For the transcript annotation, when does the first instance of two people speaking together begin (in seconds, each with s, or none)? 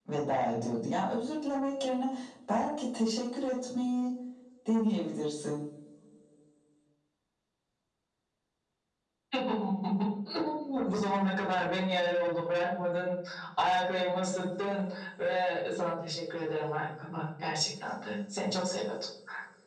none